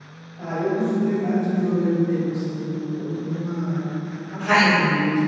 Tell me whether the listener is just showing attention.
Yes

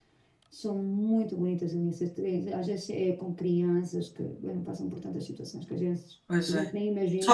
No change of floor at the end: No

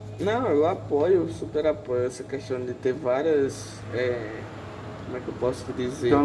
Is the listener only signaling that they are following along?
No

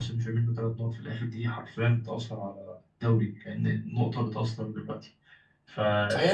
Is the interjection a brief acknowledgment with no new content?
No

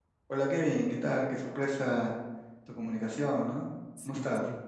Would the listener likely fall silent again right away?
No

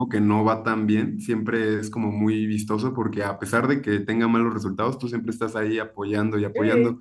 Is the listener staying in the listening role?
Yes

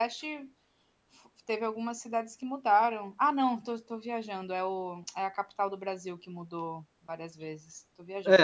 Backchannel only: No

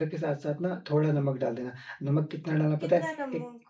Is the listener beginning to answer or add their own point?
No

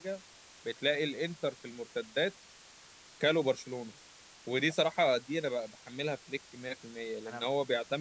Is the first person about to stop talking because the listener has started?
No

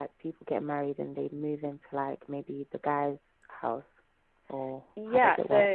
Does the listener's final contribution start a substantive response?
Yes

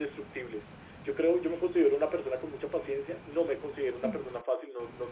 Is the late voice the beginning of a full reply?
No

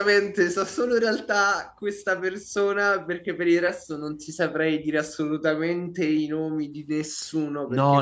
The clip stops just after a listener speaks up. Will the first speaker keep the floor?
No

